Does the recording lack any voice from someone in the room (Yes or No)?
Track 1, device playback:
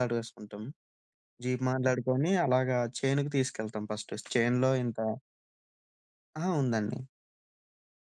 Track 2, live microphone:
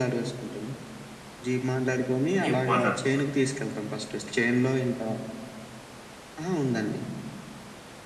No